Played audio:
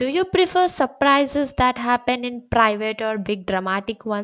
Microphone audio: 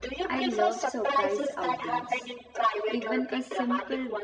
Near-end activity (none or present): present